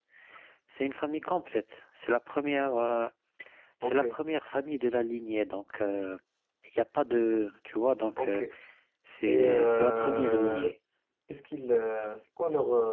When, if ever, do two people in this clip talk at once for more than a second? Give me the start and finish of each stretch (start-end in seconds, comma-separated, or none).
9.2-10.7